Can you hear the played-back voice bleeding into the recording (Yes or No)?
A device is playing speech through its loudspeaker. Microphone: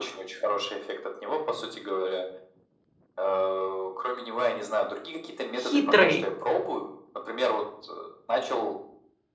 Yes